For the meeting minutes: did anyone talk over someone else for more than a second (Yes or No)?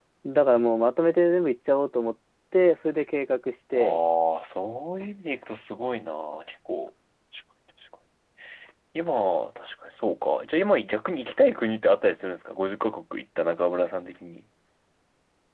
No